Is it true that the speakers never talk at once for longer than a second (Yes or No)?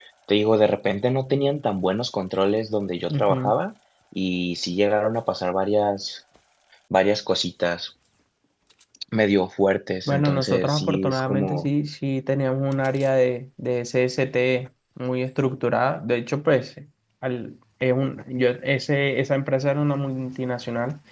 No